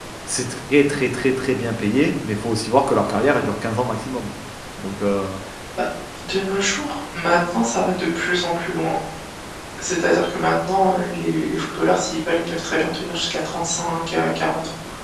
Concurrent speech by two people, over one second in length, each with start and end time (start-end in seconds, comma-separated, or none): none